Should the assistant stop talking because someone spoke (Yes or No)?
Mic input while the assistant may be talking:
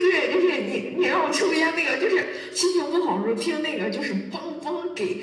No